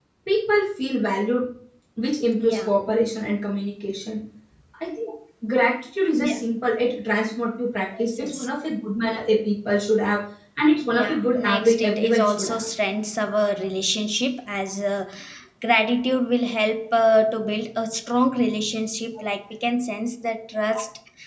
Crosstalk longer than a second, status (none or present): present